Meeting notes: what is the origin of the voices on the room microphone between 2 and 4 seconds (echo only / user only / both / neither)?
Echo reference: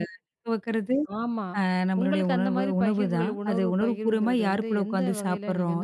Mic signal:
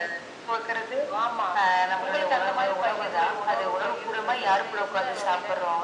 echo only